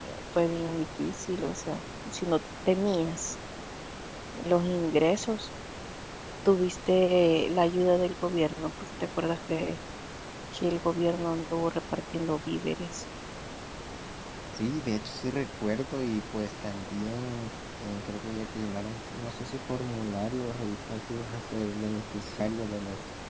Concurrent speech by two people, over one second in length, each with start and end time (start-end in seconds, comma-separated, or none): none